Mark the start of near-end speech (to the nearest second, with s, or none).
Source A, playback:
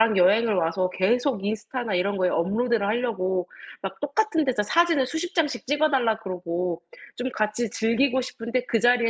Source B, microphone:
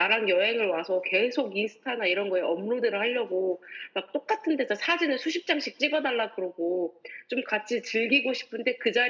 none